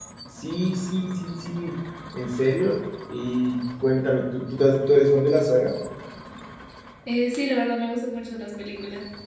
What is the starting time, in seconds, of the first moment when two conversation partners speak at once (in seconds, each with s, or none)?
none